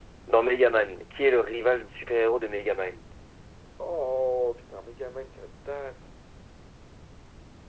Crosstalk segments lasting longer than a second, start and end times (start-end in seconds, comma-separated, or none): none